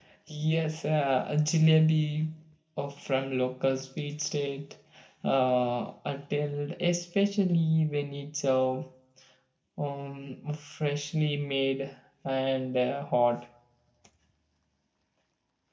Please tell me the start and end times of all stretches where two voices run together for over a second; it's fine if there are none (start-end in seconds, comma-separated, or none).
none